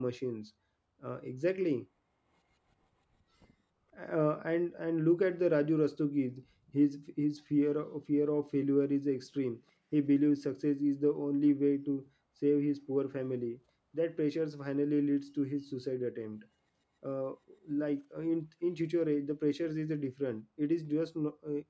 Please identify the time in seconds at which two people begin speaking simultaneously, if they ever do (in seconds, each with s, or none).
none